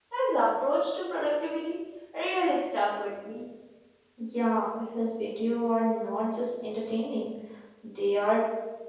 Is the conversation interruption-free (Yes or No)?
Yes